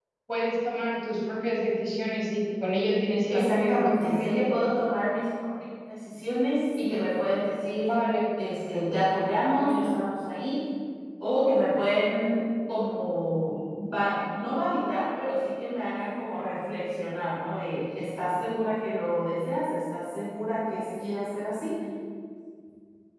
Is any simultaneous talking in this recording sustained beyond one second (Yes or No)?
Yes